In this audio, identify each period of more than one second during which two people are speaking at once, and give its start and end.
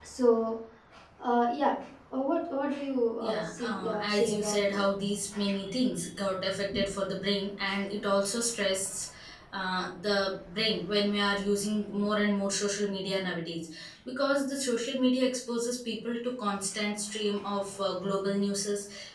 3.2-4.8

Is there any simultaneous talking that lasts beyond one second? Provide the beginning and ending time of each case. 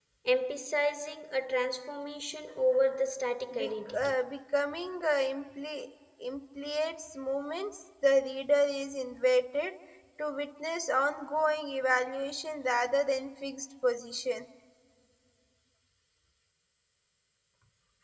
none

